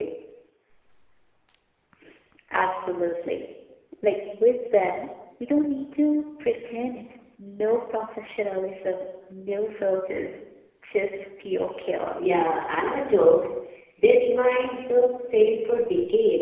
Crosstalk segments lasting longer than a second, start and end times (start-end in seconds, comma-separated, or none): none